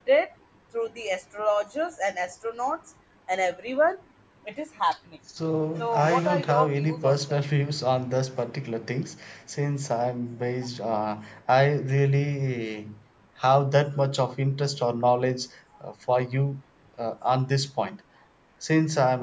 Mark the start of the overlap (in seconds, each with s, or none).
5.8 s